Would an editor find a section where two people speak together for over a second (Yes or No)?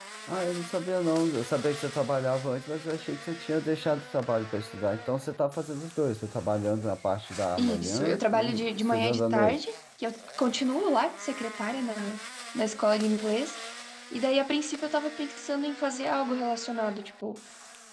Yes